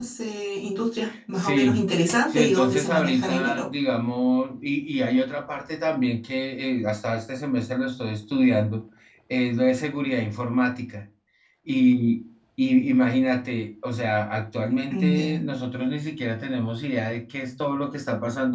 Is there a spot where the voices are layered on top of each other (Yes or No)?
Yes